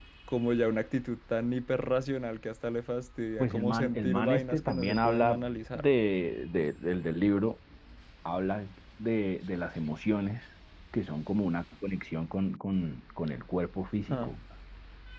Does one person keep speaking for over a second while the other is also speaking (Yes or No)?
Yes